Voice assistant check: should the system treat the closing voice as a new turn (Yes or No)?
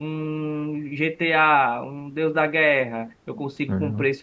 No